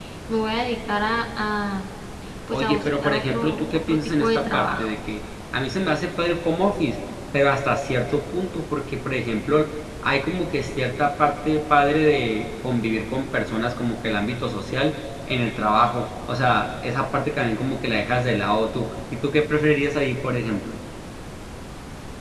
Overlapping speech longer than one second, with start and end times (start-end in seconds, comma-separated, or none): 2.5-4.8